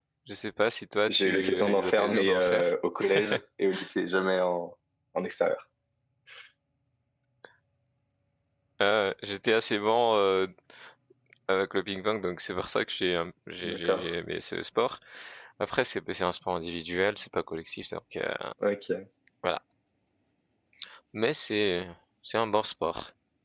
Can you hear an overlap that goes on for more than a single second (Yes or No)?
Yes